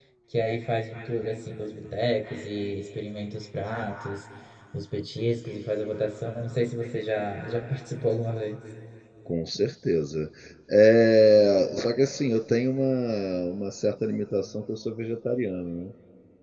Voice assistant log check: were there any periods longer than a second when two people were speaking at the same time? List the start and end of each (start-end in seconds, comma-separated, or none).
none